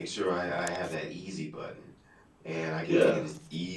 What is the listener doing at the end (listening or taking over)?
listening